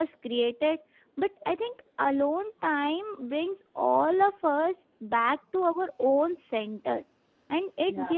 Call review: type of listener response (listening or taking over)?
listening